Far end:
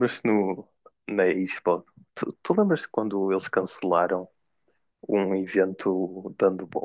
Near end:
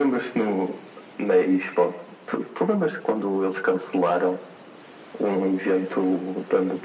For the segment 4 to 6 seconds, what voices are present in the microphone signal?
echo only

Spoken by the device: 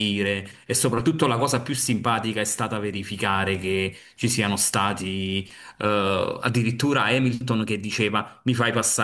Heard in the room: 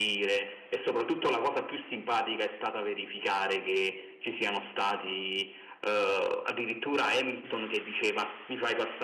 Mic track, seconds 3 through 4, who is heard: echo only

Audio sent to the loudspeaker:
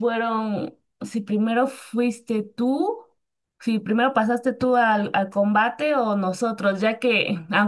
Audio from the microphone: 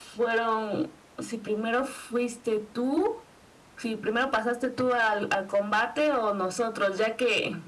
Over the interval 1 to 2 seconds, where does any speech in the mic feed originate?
echo only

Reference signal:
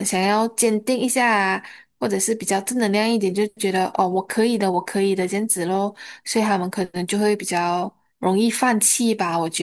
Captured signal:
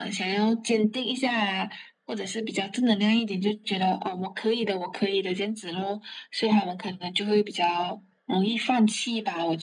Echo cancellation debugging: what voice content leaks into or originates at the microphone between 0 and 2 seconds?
echo only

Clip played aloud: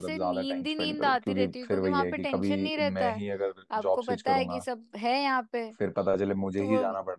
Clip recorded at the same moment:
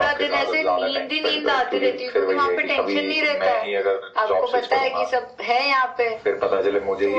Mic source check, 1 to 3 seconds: echo only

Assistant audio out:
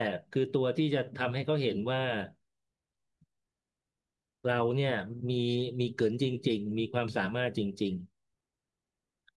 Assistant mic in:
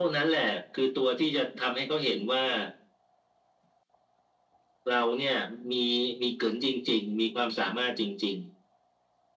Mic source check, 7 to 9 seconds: echo only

